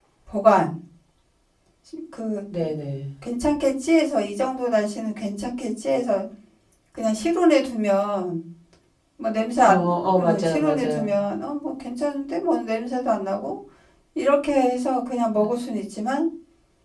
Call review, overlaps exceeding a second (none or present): present